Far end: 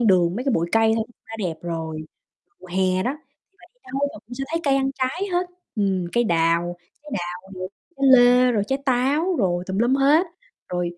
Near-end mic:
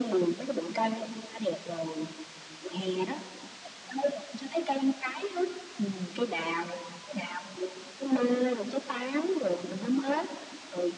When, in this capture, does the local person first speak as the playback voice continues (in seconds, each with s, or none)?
none